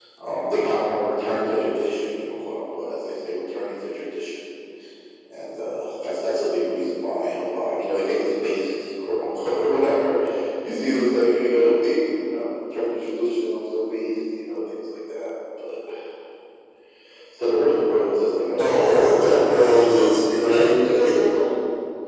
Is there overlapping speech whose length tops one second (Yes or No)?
Yes